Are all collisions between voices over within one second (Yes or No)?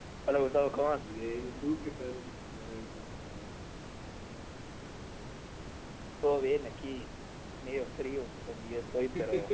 Yes